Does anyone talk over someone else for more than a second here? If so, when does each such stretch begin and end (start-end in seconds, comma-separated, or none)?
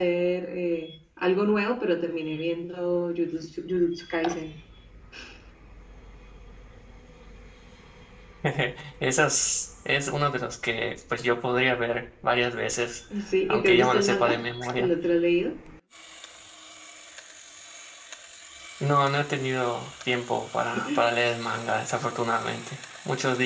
13.5-14.9